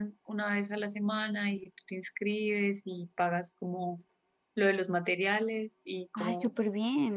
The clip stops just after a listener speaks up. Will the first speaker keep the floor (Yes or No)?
No